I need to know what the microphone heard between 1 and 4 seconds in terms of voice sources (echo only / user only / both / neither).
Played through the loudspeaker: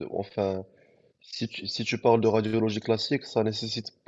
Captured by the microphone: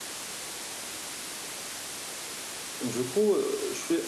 user only